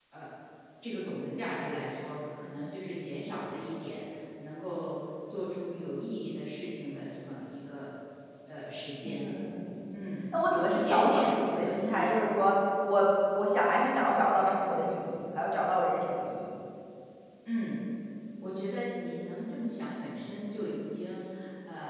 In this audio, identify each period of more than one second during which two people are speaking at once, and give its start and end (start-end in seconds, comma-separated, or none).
10.5-12.1